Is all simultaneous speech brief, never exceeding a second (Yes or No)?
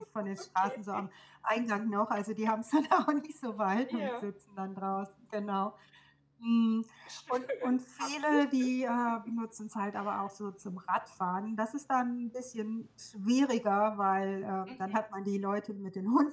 No